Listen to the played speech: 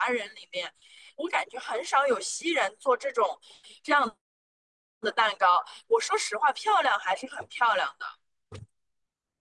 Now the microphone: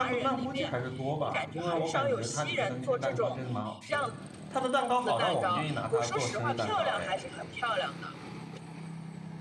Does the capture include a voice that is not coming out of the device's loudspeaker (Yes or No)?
Yes